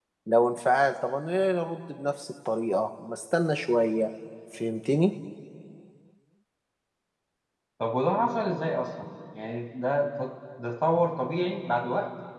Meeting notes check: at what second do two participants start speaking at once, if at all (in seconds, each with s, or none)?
none